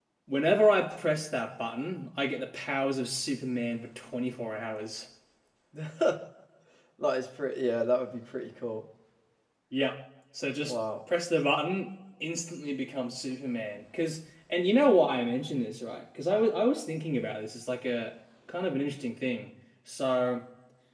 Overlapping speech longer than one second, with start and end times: none

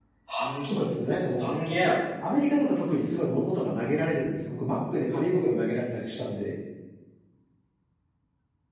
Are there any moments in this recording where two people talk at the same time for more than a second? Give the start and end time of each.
none

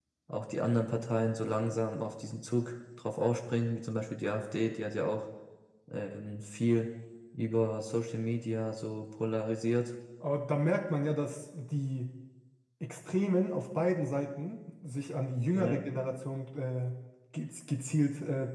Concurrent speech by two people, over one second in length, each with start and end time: none

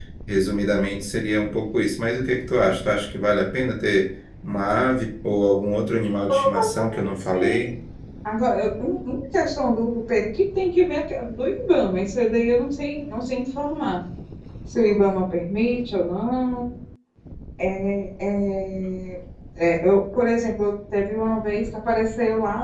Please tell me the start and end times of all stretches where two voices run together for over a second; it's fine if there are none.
6.3-7.7

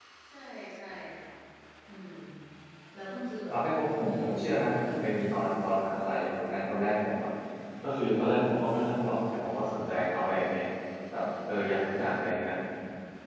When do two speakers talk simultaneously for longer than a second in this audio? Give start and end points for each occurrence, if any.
3.5-5.4

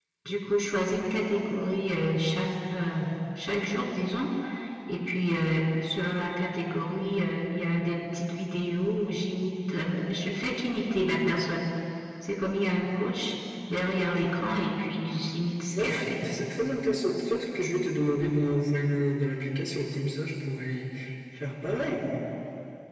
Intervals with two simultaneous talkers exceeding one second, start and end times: none

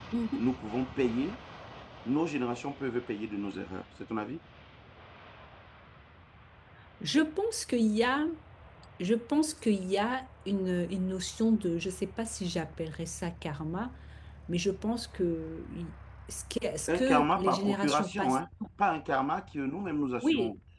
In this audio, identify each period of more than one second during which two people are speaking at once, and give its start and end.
17.0-18.4

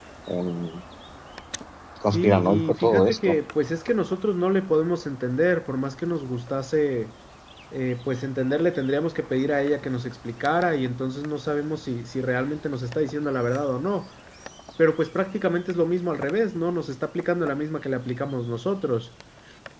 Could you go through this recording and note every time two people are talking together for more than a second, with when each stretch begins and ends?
2.1-3.4

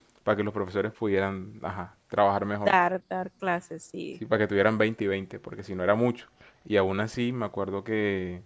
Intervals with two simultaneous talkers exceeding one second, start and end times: none

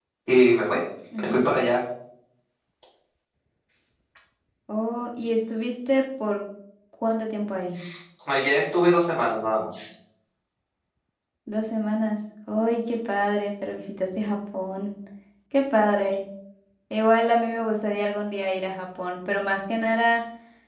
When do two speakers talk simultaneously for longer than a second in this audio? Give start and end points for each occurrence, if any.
none

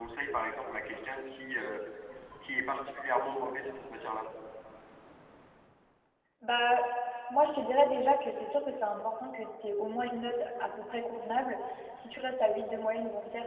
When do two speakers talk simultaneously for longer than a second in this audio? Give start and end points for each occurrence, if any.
none

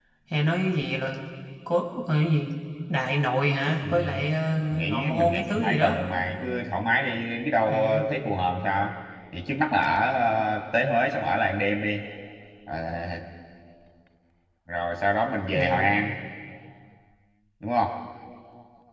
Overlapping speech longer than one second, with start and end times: 4.7-6.0

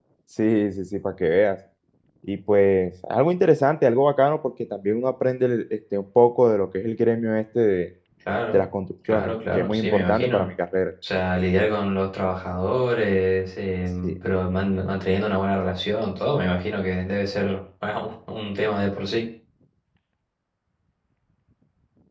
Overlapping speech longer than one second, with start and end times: 9.1-10.5

